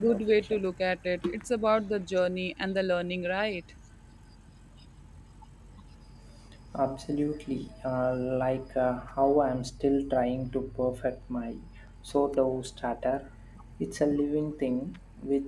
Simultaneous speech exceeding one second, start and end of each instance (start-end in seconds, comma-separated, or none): none